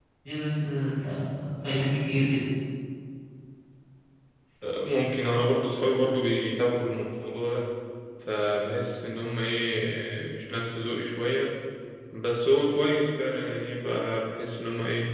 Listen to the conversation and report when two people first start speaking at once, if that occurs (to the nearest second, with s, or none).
none